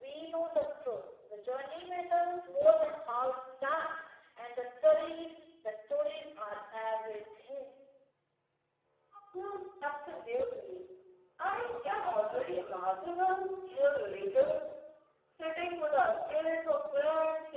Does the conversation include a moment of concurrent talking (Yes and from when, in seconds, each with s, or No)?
No